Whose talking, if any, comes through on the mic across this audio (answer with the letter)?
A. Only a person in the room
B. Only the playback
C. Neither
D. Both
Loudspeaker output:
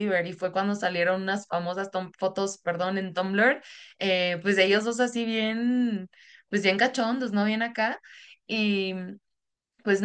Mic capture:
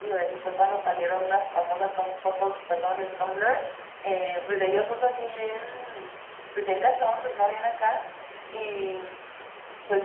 B